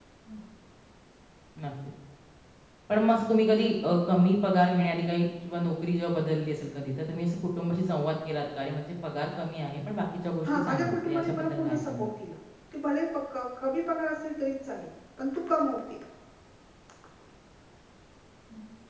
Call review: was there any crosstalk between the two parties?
Yes, from 10.4 s

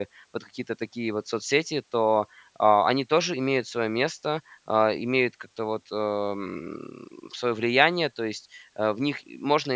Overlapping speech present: No

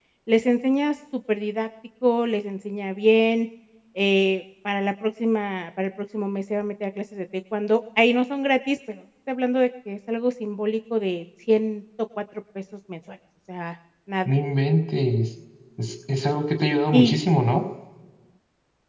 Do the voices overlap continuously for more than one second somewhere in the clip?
No

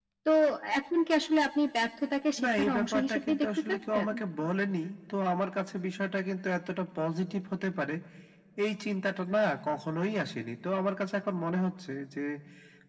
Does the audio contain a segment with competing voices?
Yes, from 2.4 s

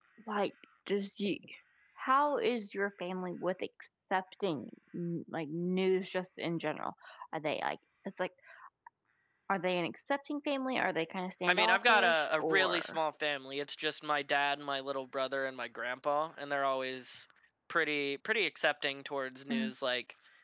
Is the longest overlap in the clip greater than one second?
Yes, from 11.5 s

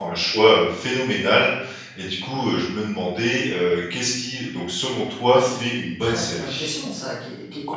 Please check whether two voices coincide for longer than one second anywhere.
Yes, from 5.3 s

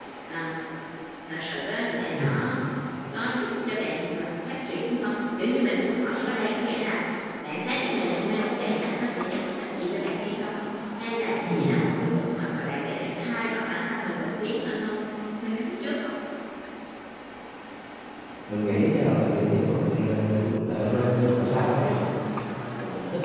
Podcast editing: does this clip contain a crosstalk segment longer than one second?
No

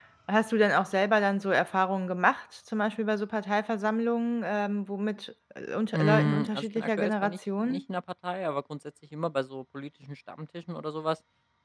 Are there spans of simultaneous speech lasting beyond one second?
Yes, from 5.9 s

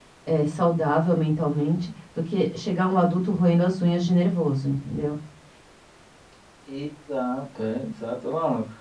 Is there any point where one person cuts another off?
No

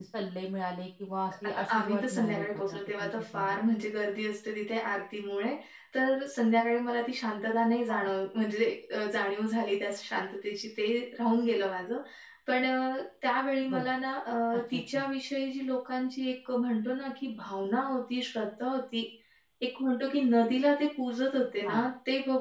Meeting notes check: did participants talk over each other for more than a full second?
Yes, from 1.4 s

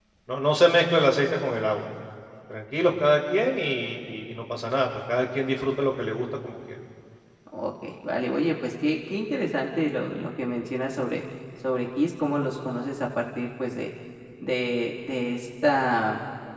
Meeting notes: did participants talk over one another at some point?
No

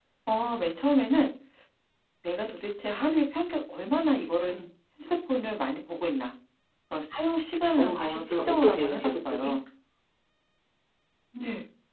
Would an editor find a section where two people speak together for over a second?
Yes, from 7.8 s

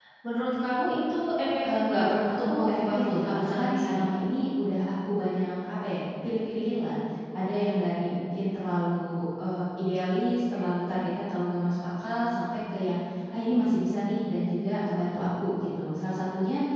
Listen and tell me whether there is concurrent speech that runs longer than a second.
Yes, from 1.6 s

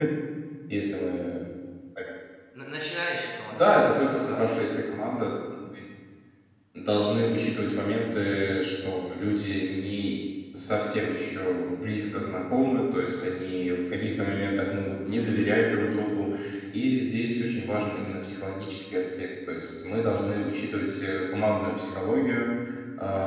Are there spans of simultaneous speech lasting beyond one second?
Yes, from 3.5 s

